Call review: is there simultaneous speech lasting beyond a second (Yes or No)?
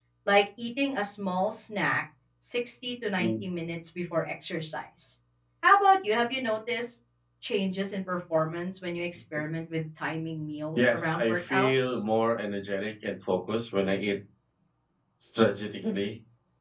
Yes